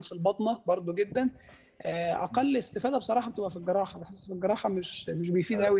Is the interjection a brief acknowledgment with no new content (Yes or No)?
Yes